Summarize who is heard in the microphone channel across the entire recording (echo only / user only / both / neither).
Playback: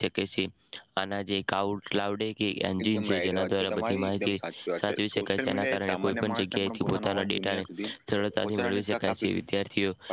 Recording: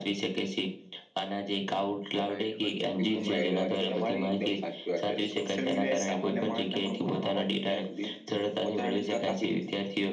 both